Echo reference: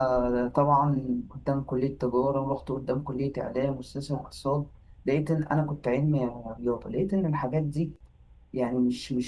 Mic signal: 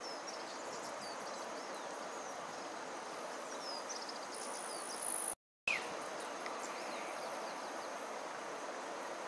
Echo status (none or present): none